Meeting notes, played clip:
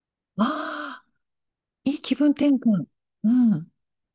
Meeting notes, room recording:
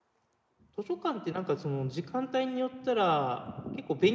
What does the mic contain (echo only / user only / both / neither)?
user only